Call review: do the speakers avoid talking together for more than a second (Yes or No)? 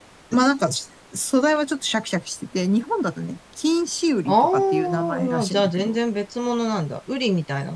No